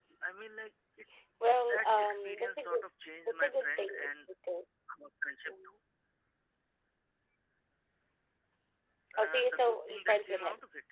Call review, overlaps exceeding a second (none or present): present